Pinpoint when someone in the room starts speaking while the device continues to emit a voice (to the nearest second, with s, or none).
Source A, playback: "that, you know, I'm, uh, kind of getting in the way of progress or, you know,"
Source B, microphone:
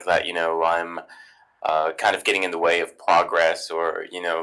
none